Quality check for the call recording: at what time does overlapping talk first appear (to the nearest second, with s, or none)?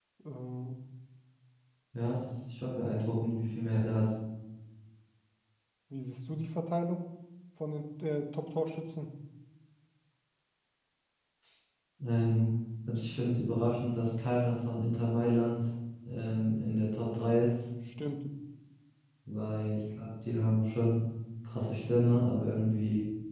none